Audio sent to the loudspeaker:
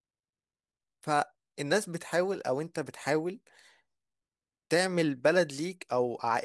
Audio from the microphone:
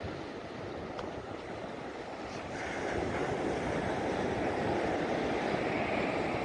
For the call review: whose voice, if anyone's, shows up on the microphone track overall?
neither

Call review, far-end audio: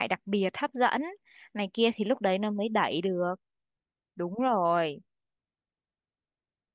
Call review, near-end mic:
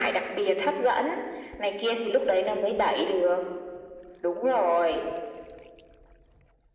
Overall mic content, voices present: echo only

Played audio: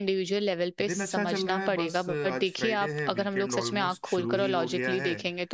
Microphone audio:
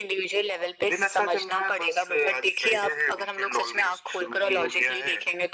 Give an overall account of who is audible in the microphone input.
echo only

